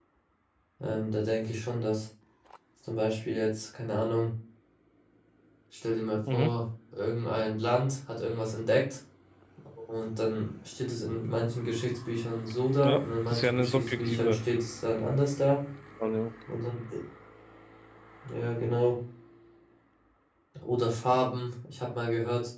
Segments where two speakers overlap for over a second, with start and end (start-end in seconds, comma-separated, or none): 12.8-14.4